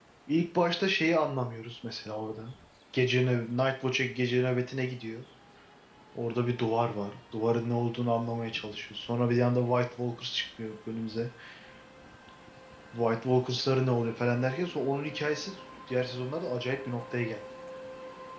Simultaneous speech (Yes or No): No